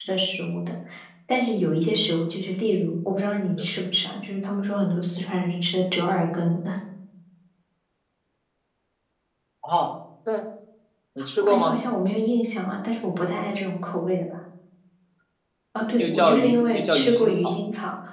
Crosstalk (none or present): present